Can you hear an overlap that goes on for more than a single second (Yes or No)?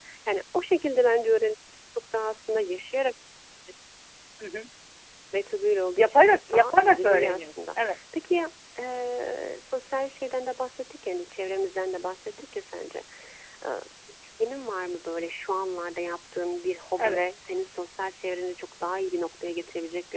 Yes